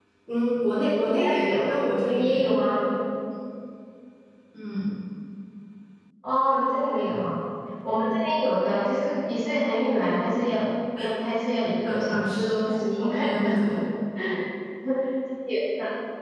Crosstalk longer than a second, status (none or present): present